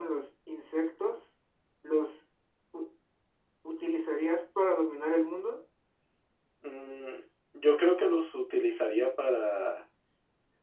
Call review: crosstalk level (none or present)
none